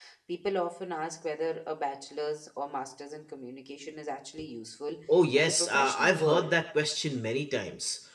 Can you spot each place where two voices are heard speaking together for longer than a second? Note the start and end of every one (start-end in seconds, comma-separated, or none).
5.4-6.6